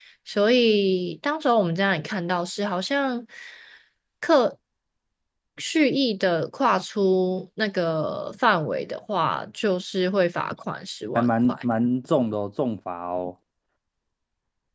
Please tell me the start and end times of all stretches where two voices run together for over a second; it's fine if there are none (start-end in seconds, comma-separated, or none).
none